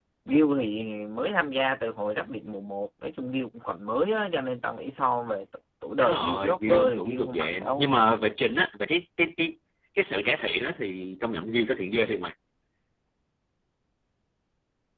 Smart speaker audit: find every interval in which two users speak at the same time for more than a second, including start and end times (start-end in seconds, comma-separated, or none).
6.0-7.9